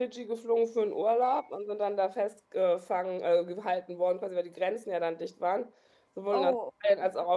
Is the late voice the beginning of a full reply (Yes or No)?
No